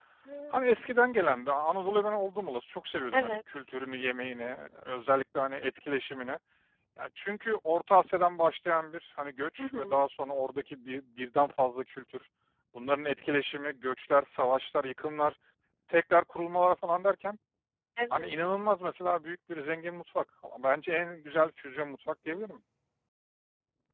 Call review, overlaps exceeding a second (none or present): none